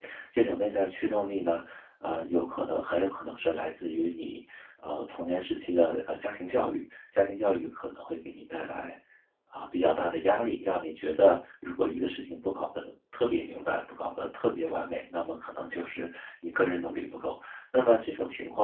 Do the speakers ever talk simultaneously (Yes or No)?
No